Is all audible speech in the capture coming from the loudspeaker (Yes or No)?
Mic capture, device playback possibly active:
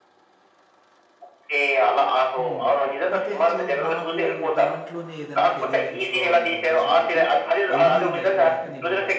No